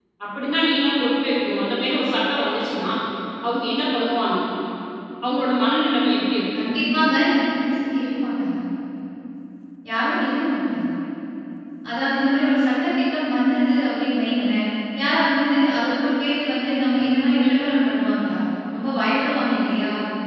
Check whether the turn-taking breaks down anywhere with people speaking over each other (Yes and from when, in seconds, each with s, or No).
No